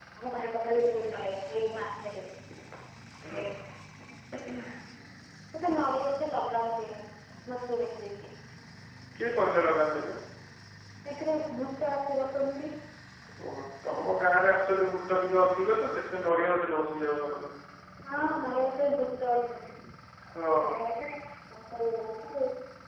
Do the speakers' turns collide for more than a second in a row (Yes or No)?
No